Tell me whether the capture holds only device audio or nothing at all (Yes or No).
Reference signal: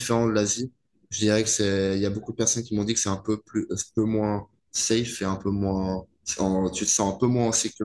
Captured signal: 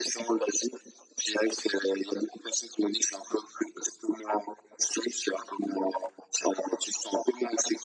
Yes